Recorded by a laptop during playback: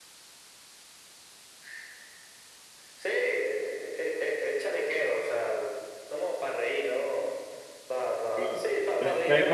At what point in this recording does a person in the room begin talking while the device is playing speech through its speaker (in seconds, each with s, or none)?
8.3 s